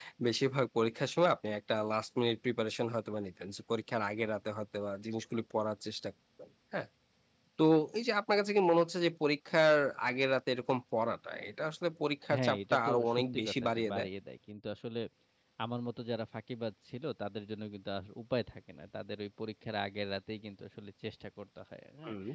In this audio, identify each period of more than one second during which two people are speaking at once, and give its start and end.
12.4-14.1

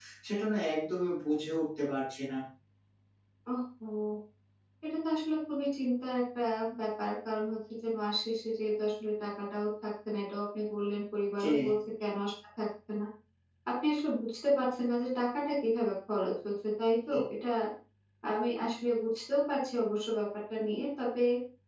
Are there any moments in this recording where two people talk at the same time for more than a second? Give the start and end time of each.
none

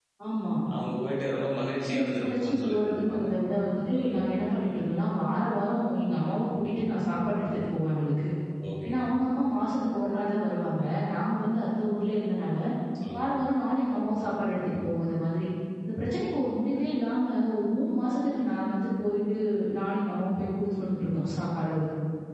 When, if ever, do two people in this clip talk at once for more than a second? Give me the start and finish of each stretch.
1.9-3.2

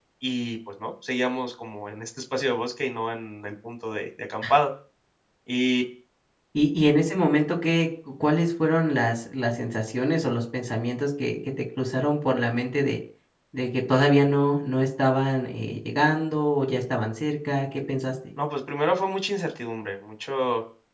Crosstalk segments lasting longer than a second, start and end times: none

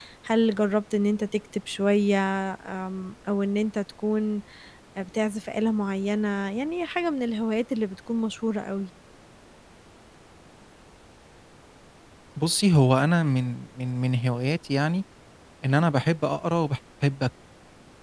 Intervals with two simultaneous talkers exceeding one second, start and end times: none

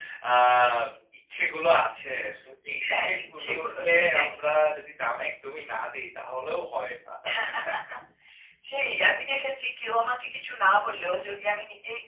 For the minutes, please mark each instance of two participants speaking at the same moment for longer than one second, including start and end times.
2.8-4.3

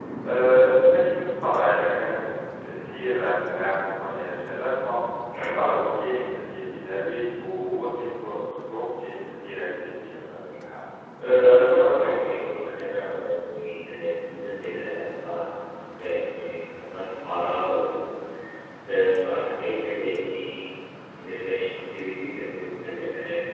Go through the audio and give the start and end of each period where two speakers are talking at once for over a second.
11.4-12.7

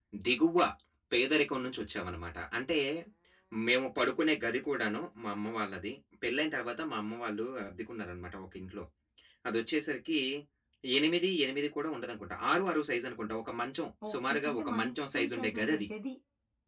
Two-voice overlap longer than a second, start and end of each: 14.1-15.9

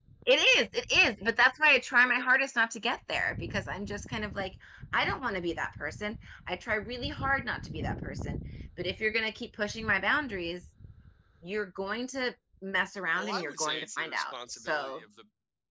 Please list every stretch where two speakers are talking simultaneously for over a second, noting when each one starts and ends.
13.2-15.0

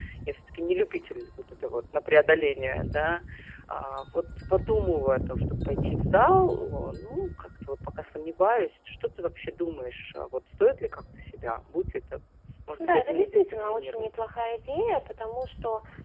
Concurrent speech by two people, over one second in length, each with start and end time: 12.8-14.1

